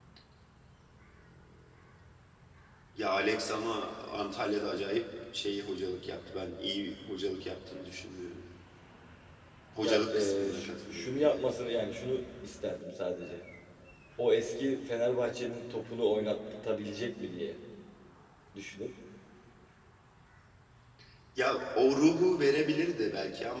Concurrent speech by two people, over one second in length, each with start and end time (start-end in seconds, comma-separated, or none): 9.8-11.5